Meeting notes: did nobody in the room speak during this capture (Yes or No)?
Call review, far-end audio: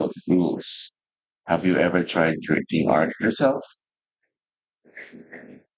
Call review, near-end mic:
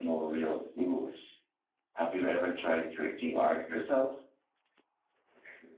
Yes